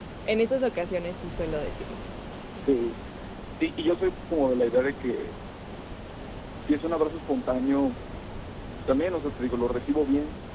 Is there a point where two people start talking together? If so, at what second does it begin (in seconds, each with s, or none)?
none